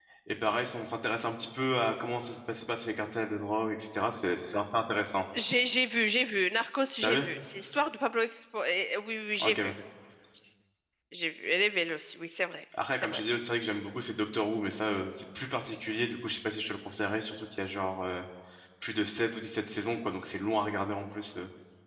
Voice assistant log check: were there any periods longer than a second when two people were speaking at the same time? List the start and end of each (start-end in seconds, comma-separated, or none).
none